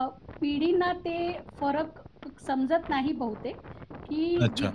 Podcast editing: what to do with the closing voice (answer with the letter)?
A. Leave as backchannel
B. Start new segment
A